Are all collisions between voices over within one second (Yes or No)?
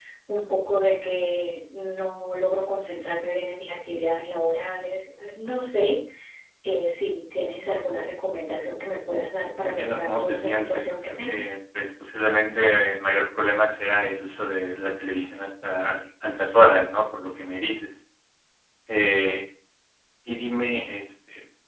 No